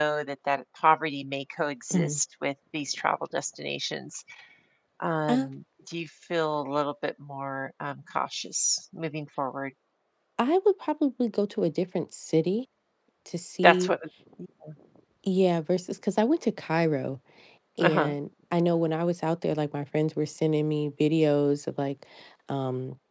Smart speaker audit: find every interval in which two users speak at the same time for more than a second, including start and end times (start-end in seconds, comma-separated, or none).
none